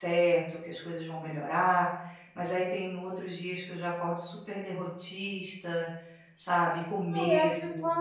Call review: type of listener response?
taking over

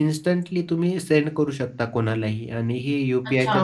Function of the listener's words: taking over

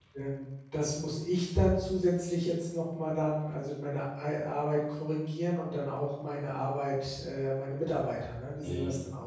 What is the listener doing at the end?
taking over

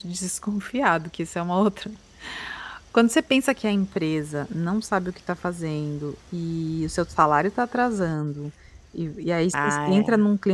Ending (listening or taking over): listening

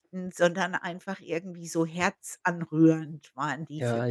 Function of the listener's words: taking over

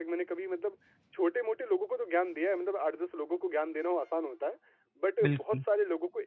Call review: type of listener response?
listening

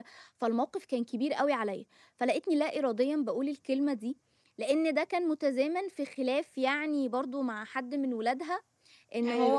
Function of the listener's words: listening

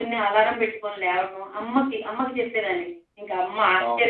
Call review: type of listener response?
listening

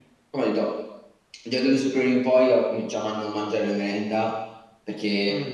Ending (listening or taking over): listening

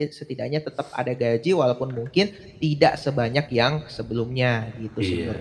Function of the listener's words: taking over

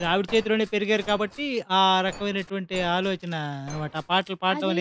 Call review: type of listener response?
taking over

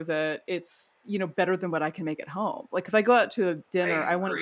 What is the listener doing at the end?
listening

